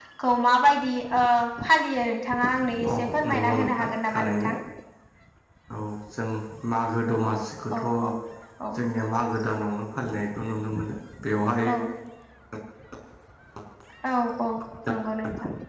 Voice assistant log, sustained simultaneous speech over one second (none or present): present